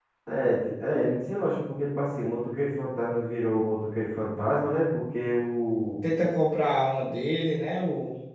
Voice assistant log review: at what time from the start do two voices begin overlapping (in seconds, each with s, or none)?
none